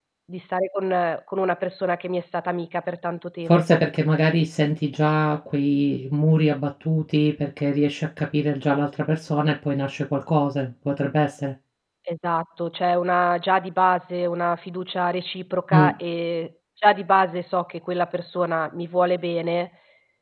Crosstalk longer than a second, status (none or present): none